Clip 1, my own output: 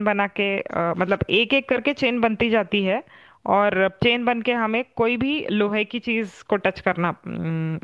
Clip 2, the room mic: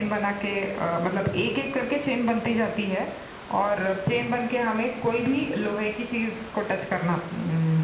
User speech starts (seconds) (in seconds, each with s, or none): none